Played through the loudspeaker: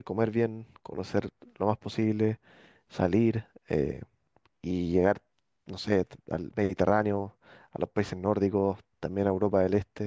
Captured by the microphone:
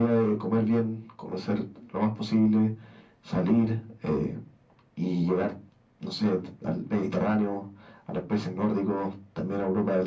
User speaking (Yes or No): No